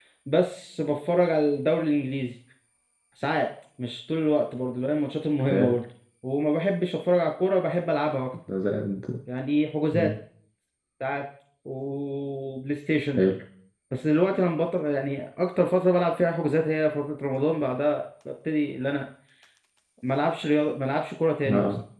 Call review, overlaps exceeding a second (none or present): none